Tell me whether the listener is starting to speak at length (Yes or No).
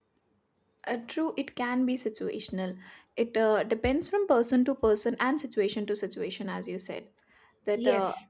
No